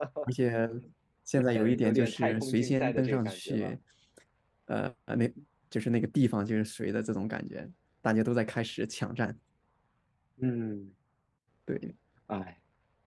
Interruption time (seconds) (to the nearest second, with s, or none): 2 s